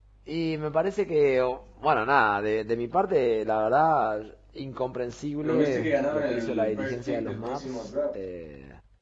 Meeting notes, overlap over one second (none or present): present